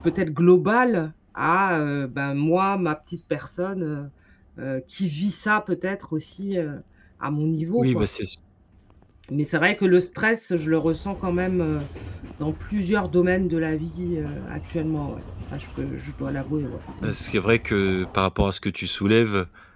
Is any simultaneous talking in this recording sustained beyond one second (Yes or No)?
No